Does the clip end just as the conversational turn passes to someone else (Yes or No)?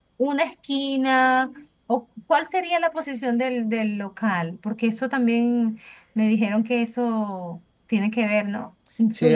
Yes